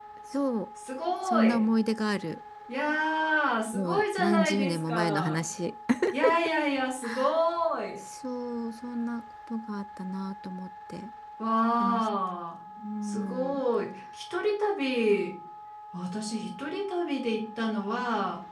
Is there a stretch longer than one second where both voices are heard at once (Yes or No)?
Yes